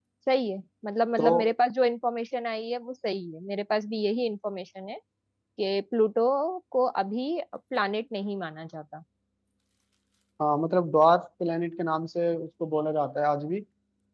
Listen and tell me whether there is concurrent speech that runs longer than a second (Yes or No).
No